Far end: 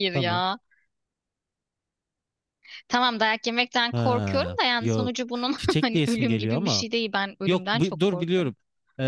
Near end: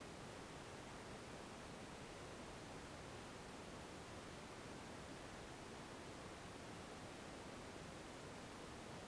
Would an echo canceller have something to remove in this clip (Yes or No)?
No